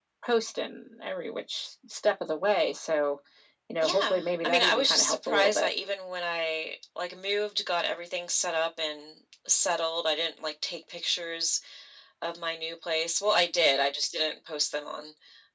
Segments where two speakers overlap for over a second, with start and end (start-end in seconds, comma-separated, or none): 3.8-5.7